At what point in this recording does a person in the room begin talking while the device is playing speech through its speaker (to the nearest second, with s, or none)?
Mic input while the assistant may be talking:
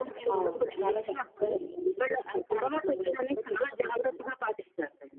0 s